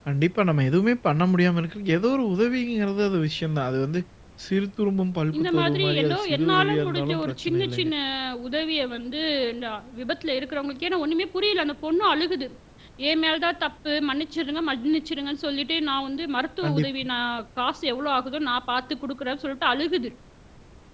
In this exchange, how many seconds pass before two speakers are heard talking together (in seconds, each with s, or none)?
5.4 s